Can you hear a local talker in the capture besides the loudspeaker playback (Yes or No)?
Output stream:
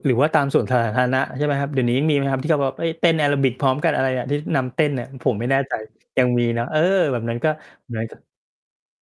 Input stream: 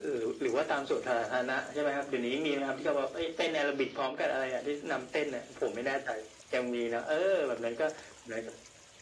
No